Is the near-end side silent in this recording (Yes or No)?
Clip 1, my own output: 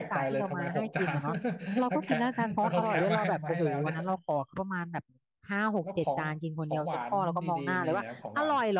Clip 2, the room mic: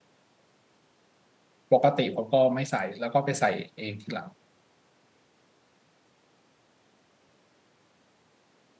No